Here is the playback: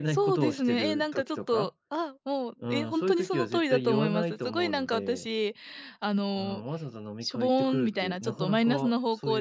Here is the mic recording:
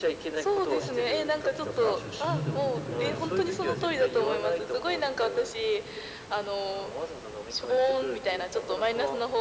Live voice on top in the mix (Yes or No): No